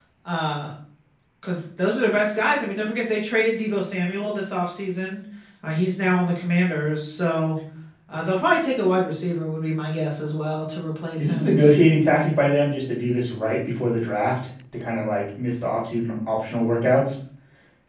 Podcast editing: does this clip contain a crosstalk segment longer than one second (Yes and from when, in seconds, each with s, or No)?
No